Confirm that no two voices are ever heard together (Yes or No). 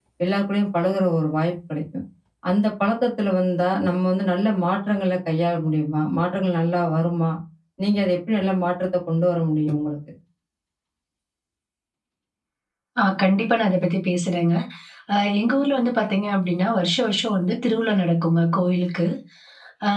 Yes